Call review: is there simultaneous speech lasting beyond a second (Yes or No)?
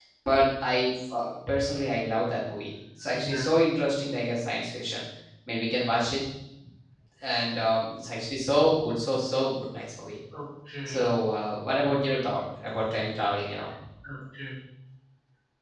No